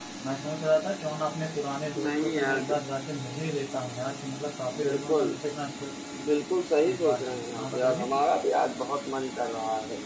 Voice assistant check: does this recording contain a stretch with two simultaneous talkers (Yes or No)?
Yes